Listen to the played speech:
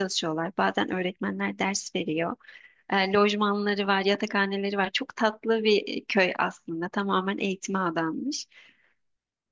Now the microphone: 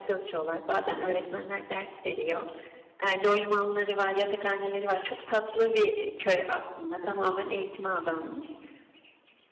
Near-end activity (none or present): none